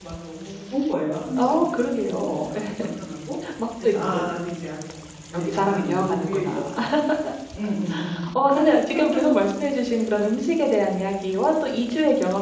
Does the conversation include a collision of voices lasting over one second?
Yes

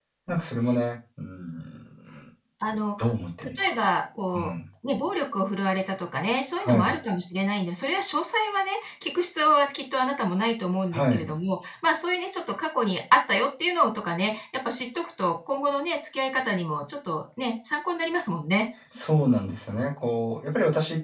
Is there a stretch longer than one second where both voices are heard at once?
No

